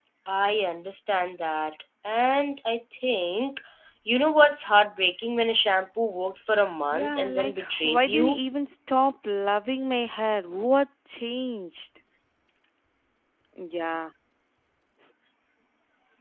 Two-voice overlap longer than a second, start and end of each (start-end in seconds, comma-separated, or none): 6.9-8.4